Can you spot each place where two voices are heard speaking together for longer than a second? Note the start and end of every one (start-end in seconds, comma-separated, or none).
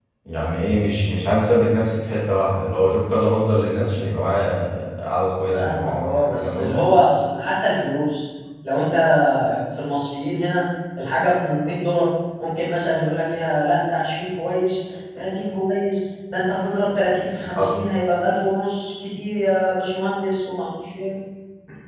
5.5-6.8